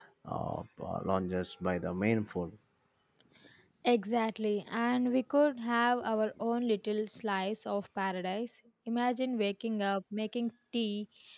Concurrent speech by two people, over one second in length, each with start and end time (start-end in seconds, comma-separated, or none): none